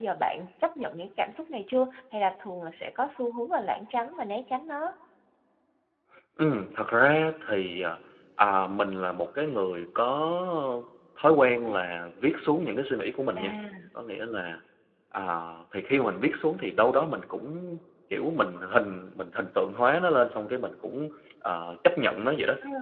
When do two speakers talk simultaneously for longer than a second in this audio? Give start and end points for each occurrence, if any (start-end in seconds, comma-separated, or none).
none